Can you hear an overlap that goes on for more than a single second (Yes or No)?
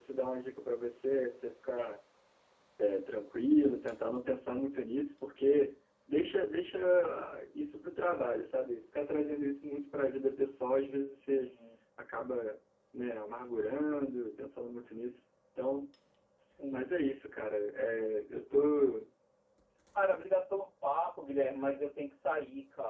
No